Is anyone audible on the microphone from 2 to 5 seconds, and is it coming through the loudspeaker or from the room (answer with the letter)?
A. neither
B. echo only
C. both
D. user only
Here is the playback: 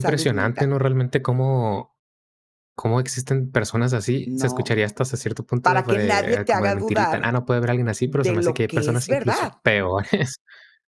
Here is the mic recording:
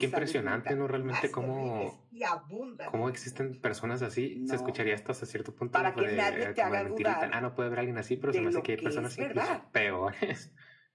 C